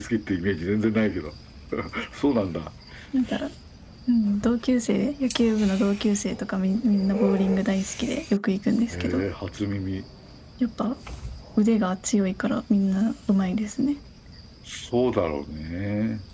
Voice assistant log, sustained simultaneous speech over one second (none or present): none